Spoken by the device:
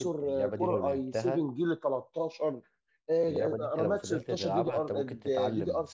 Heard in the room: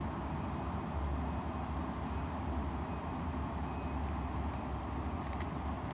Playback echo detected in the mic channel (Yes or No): No